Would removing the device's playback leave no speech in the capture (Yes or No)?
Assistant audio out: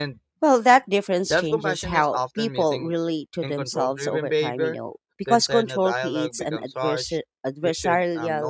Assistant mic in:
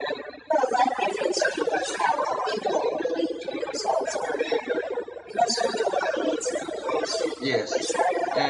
No